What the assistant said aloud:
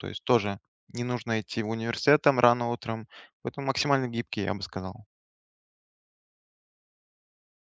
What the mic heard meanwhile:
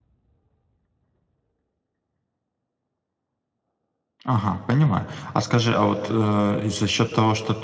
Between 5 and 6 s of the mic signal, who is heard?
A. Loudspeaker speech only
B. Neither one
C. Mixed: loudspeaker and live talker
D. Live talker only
D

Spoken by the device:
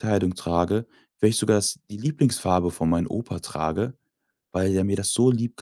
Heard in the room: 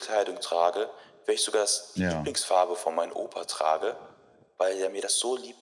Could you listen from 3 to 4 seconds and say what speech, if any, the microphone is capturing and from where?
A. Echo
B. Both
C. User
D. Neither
A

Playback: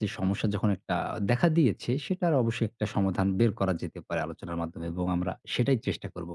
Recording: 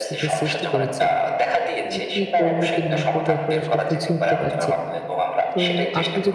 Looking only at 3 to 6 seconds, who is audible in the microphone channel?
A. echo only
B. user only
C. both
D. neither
C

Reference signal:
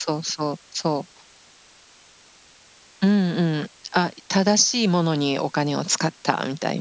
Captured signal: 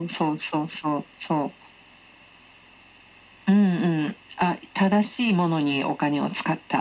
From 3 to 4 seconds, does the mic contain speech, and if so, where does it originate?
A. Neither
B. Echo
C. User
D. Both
B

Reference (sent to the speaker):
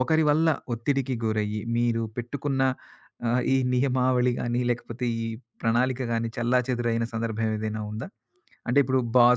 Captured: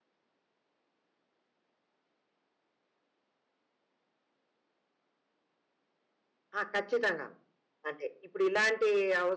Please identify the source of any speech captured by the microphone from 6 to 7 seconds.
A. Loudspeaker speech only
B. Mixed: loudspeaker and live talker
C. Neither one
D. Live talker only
D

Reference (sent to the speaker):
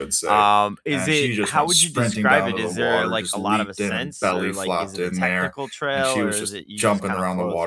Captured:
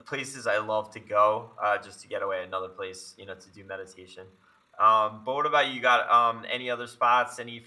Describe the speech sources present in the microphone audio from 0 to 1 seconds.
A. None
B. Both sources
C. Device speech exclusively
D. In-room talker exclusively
D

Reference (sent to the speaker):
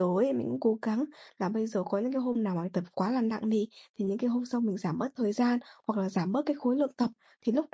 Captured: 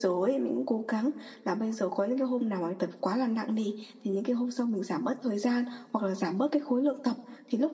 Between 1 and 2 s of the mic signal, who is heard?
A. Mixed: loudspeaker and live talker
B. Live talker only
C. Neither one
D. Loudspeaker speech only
D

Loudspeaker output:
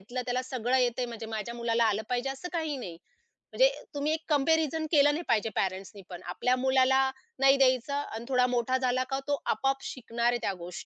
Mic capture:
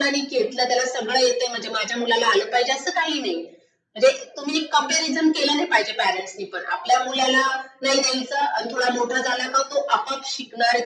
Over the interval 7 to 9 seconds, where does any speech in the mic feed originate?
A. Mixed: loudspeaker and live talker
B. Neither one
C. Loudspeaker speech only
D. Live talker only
C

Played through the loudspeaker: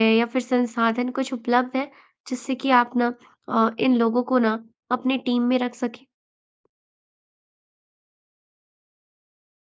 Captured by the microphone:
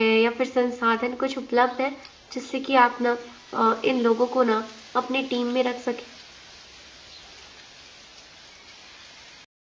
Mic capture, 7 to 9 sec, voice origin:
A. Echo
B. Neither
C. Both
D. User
B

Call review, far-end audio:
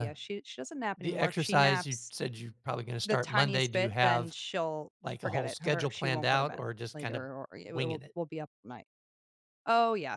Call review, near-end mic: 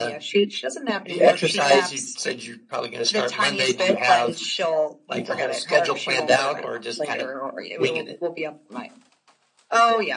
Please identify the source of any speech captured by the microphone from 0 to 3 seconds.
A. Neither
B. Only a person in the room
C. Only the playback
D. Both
C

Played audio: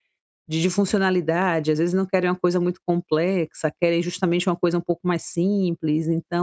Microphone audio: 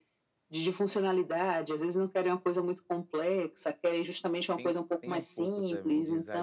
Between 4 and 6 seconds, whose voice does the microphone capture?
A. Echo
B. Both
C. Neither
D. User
B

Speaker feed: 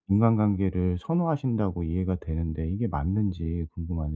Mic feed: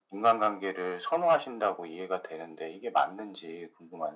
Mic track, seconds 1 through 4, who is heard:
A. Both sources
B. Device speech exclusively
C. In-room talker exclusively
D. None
B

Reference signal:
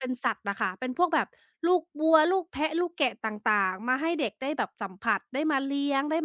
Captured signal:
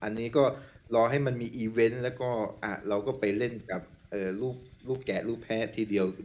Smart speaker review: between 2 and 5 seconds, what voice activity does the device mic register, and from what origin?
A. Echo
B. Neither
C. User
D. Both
C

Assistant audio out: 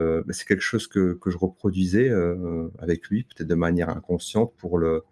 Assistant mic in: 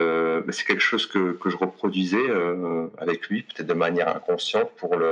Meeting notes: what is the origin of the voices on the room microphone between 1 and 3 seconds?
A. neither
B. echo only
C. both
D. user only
B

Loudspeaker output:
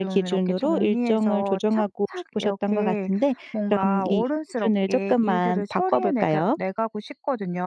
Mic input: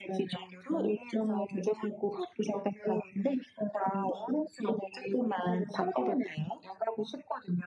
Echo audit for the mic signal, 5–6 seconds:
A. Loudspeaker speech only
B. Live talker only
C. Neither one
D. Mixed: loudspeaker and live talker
A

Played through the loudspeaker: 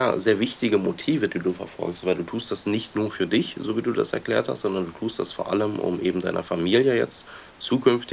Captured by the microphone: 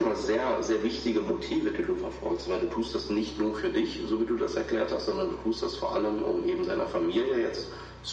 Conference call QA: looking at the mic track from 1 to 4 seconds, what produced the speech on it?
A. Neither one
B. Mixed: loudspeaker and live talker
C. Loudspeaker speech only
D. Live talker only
C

